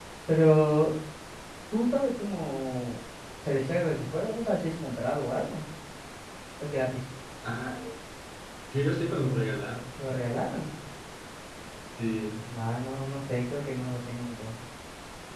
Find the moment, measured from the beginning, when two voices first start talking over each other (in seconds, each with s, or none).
none